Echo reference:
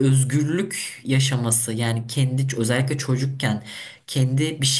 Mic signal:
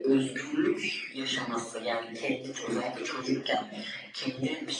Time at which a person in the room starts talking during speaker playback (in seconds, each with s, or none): none